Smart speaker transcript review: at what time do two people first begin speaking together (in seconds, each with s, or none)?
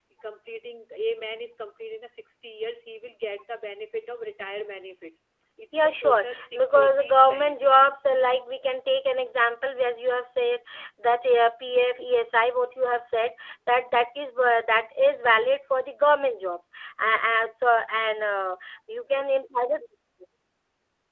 5.7 s